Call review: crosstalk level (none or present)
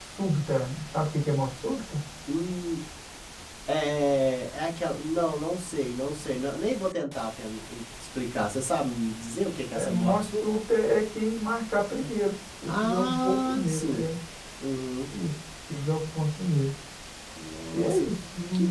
present